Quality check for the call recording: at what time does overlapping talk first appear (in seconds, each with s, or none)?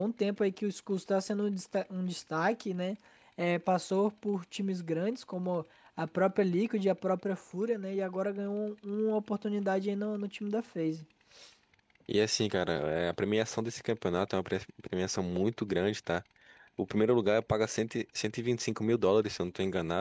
none